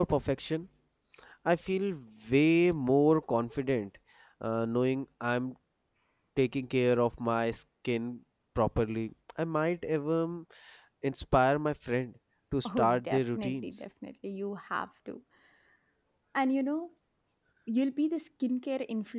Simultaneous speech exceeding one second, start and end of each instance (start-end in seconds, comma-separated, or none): 12.7-13.8